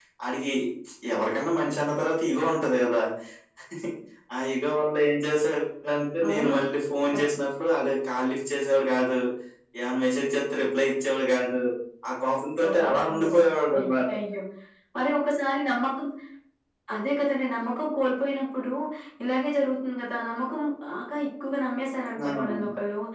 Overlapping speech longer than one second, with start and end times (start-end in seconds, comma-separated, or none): 12.7-13.9